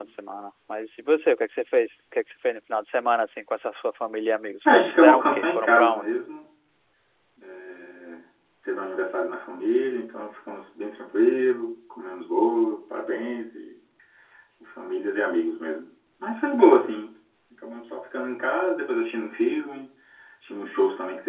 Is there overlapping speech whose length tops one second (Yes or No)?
Yes